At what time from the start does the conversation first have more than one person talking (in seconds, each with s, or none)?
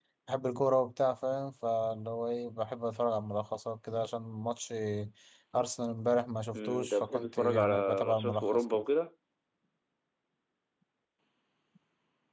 6.5 s